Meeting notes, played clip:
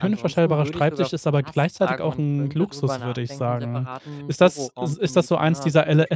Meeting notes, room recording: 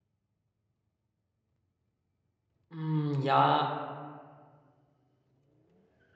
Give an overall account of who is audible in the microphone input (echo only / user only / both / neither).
user only